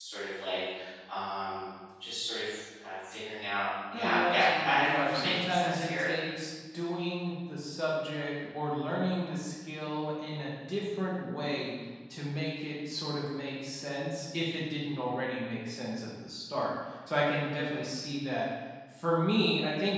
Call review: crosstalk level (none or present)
present